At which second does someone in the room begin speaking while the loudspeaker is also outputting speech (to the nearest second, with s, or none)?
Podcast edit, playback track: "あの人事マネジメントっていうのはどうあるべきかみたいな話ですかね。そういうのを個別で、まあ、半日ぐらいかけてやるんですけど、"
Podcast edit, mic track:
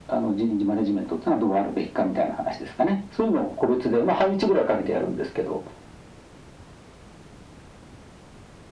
none